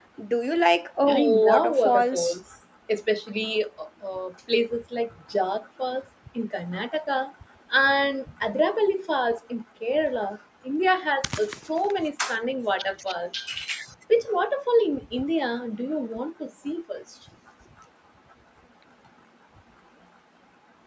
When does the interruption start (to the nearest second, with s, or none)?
1 s